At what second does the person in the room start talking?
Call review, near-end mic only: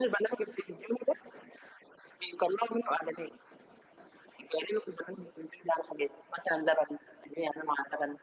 none

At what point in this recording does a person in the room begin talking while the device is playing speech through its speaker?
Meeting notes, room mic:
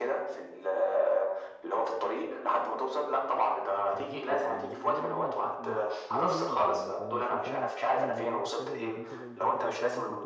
3.9 s

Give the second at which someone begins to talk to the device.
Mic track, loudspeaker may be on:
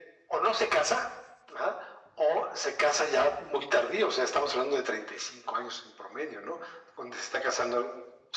none

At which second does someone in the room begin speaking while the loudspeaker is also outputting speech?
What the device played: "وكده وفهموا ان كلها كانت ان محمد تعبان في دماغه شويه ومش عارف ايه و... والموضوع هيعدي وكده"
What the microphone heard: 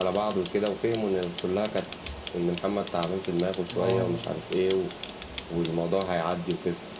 3.7 s

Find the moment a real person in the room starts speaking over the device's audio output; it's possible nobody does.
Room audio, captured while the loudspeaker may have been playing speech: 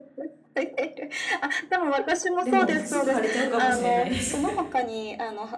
2.4 s

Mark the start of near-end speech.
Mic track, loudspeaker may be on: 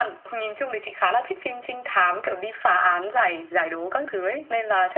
none

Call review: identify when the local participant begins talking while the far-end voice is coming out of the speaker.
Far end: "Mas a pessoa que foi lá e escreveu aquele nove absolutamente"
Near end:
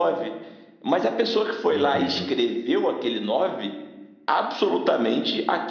1.7 s

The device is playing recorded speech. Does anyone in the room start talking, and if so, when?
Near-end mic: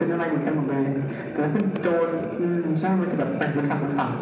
none

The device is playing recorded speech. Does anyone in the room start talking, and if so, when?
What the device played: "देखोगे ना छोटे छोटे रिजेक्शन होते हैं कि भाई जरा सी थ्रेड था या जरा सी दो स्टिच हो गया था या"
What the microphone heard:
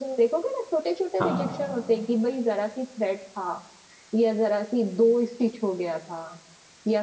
1.2 s

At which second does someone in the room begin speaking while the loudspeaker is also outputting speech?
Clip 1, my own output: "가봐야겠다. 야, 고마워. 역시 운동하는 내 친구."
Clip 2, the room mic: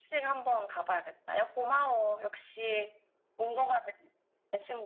none

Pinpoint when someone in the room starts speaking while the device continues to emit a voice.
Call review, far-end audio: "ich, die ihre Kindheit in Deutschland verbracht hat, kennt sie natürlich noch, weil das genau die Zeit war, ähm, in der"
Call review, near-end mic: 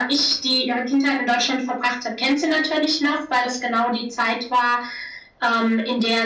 none

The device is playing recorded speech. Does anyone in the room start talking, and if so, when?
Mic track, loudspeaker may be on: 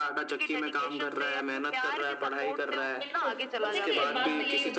3.0 s

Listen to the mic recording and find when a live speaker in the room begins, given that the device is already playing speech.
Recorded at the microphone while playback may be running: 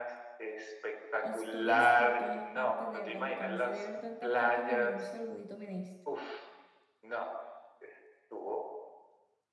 1.2 s

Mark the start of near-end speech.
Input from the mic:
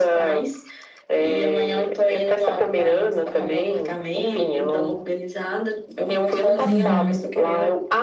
6.6 s

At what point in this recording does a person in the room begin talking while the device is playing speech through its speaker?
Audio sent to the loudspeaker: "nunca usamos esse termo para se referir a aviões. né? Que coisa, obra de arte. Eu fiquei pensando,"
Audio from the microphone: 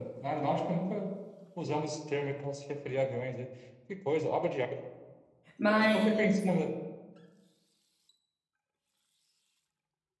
5.6 s

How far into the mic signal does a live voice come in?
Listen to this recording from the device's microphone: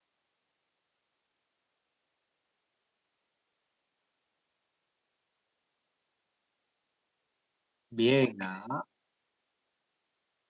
7.9 s

